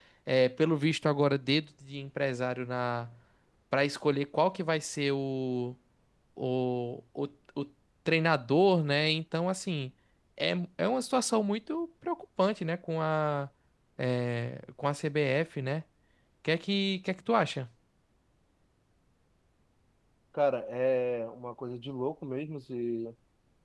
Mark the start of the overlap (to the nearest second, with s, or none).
none